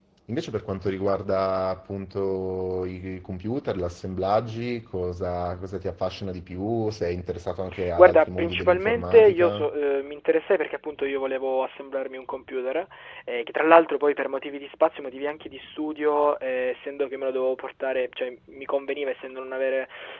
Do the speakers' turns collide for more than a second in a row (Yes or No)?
Yes